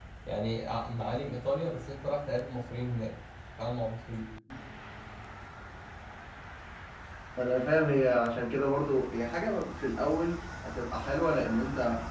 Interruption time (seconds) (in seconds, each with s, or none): none